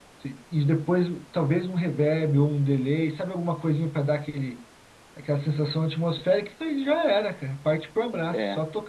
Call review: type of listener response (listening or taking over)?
listening